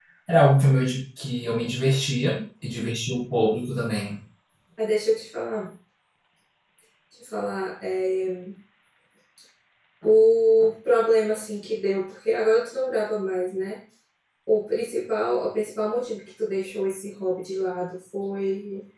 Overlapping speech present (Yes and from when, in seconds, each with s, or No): No